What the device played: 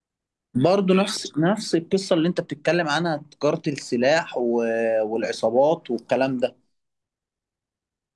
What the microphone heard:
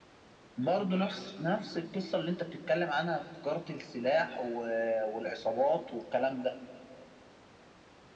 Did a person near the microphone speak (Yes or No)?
No